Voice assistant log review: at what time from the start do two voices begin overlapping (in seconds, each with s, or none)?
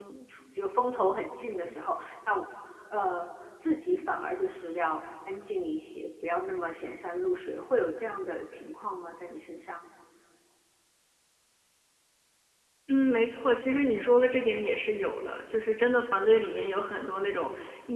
none